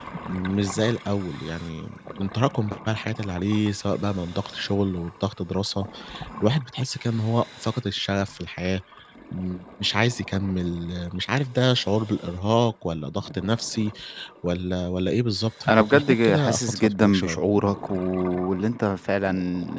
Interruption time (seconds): 16 s

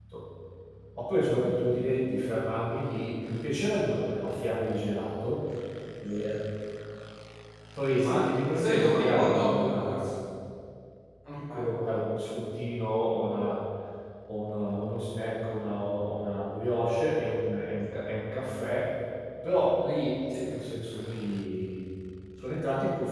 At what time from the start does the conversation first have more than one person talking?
8 s

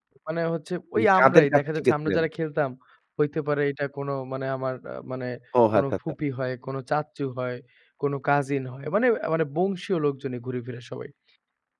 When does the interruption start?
1 s

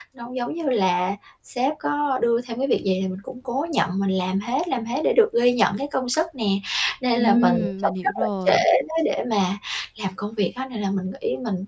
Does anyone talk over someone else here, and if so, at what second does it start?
7 s

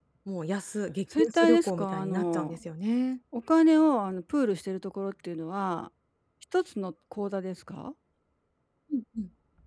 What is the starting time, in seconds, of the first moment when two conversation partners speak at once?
1 s

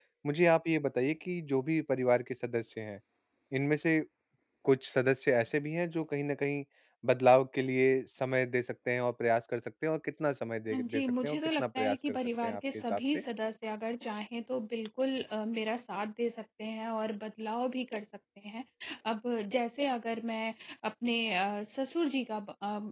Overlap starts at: 11 s

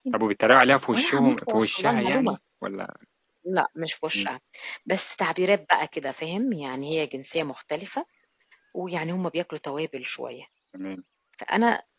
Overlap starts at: 1 s

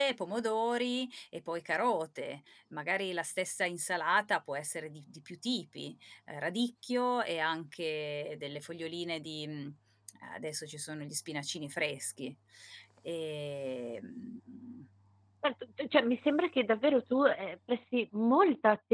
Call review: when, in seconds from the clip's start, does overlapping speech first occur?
none

